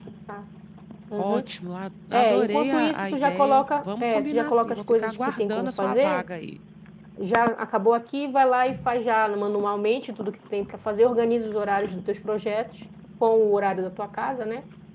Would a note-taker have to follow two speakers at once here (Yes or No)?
Yes